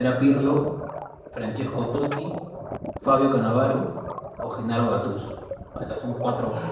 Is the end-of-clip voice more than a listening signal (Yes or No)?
Yes